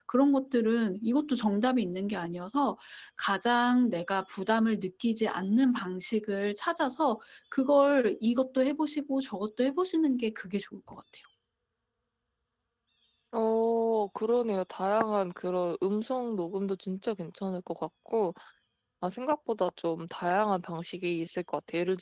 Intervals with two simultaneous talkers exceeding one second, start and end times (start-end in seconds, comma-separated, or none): none